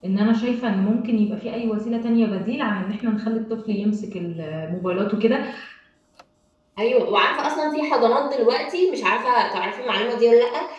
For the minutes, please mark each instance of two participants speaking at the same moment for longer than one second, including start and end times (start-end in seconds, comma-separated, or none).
none